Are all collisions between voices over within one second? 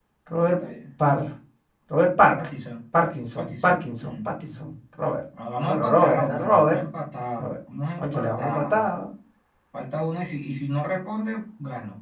No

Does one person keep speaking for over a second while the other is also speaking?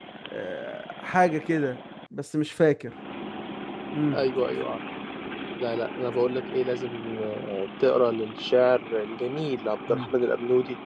No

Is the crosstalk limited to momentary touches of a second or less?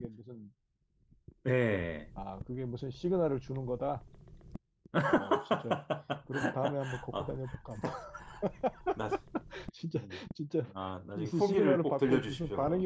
No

